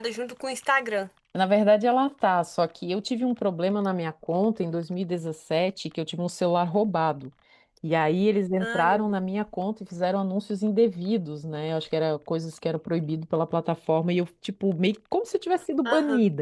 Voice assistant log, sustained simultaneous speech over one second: none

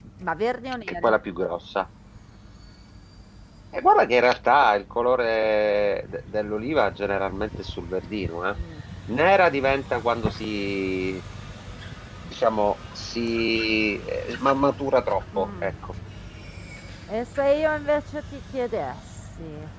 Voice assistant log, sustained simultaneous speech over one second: none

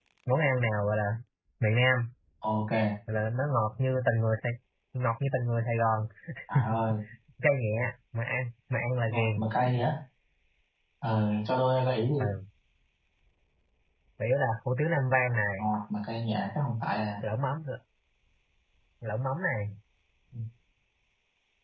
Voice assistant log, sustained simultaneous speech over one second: none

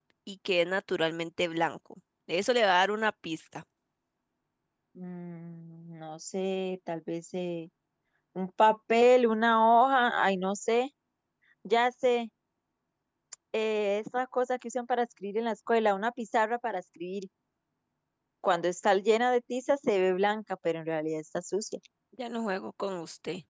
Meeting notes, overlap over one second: none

